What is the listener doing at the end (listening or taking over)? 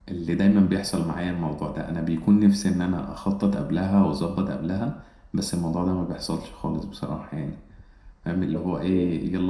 listening